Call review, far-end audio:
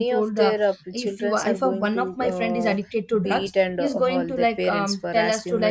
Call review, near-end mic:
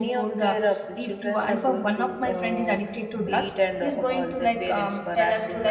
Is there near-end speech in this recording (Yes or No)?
No